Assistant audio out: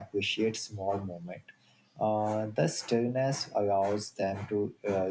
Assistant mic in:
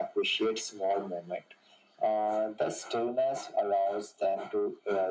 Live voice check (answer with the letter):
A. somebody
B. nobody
B